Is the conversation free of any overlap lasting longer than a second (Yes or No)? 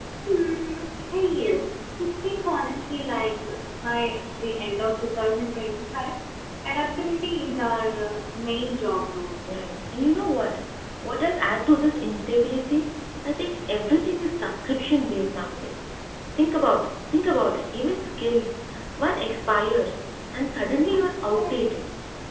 Yes